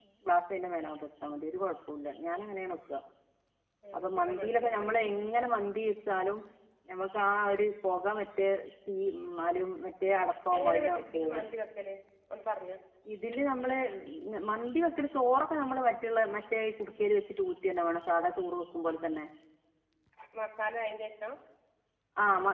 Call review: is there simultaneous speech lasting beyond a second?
Yes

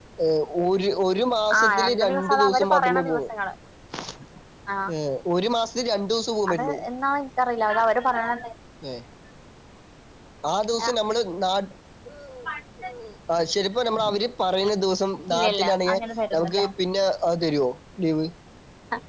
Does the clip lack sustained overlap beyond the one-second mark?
No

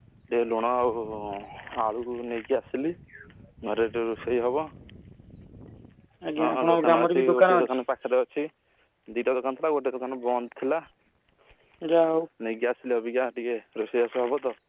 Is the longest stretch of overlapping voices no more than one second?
No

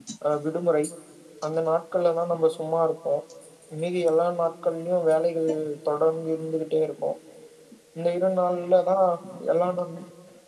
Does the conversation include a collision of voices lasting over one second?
No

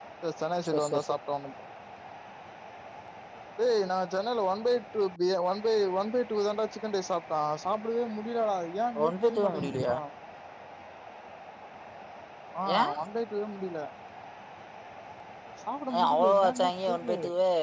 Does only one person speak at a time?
No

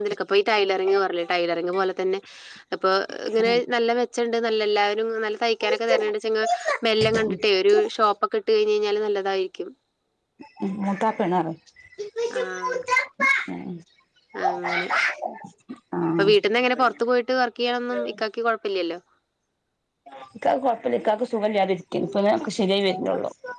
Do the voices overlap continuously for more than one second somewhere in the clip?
No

